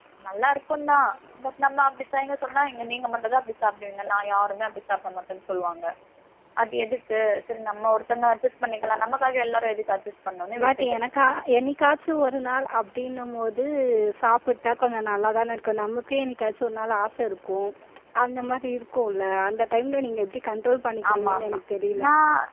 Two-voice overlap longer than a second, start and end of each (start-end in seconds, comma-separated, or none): none